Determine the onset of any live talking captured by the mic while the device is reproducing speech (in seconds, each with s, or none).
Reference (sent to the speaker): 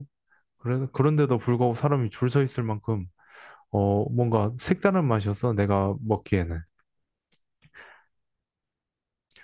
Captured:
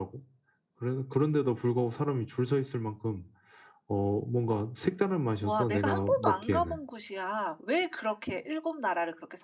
5.4 s